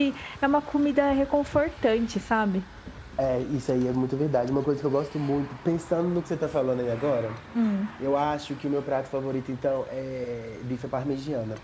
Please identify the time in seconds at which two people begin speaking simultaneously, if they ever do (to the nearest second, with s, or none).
none